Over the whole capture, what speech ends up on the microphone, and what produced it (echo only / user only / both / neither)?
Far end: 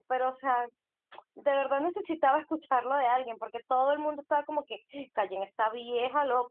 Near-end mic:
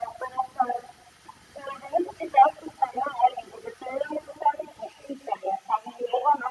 echo only